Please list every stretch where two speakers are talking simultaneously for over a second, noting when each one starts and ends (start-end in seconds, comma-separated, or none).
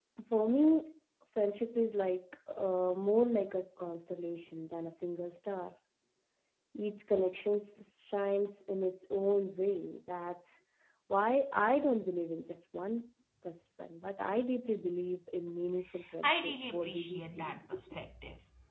16.2-17.5